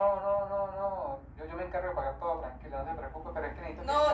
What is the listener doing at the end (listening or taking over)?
taking over